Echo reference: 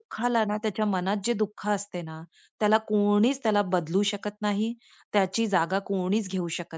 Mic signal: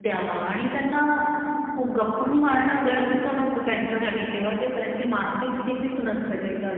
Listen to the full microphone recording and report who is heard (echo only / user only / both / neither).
user only